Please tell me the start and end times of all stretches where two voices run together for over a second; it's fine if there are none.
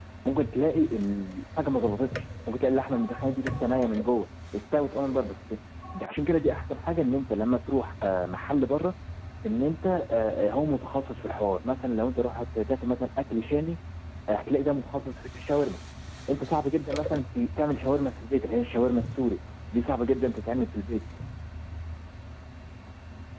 none

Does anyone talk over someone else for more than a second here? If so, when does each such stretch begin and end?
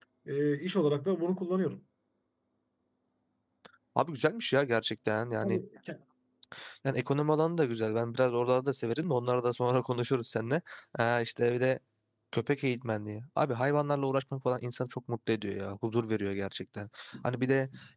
none

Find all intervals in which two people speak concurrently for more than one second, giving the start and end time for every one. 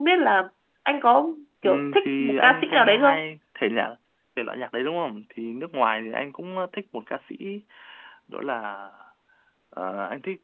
1.6-3.2

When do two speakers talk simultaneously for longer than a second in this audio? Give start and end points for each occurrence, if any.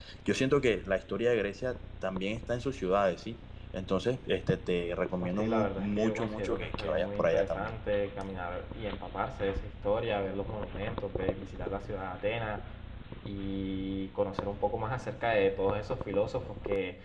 5.2-7.7

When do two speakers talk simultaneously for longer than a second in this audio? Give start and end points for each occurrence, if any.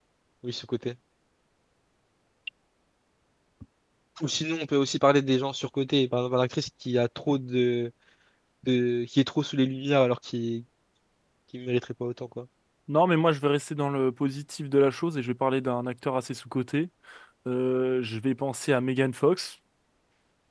none

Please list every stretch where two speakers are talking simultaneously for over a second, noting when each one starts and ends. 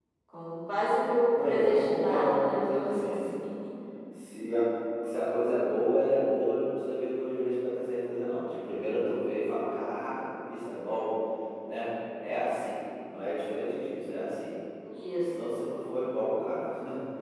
1.3-3.3

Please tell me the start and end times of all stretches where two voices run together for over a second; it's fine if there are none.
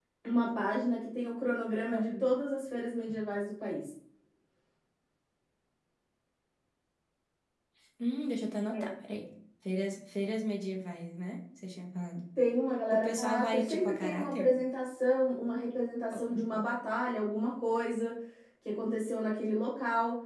12.9-14.6

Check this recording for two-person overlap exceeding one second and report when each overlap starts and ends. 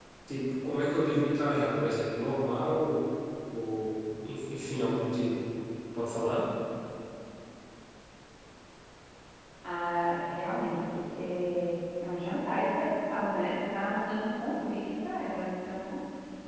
none

